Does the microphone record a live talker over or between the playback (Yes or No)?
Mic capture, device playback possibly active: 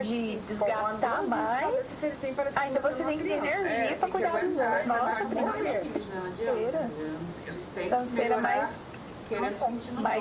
Yes